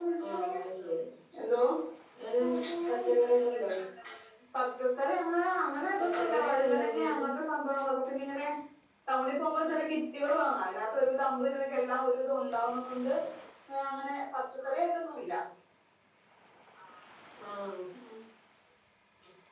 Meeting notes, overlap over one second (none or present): present